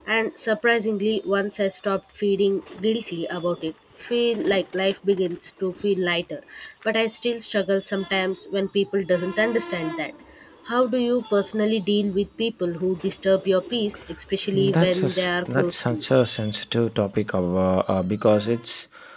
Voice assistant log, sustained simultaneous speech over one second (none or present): present